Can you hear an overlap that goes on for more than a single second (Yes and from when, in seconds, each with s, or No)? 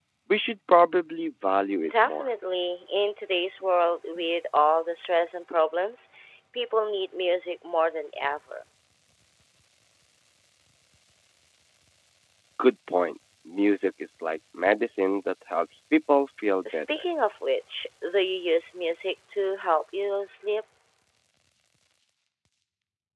No